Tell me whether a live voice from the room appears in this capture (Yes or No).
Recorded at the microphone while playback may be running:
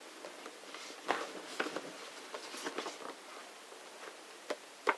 No